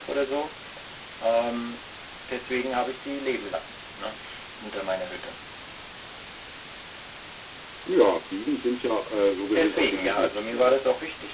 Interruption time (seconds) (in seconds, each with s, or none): 9.5 s